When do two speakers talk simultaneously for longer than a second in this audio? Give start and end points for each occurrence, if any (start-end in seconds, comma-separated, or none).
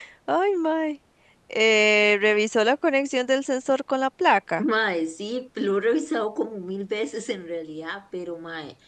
none